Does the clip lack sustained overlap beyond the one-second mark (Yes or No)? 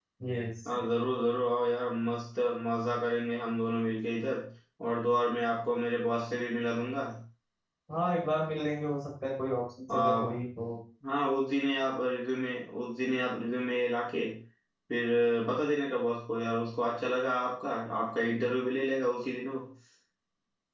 Yes